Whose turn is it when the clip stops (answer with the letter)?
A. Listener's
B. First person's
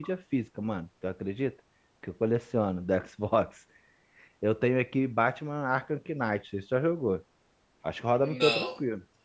A